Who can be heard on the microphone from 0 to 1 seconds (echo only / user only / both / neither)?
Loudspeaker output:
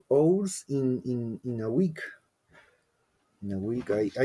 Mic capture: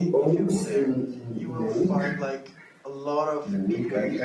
both